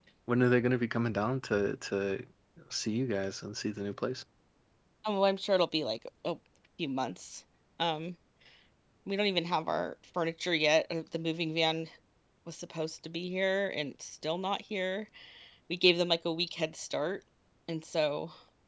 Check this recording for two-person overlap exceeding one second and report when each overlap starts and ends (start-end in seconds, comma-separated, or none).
none